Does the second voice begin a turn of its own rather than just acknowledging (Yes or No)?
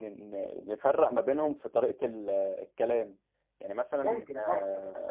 No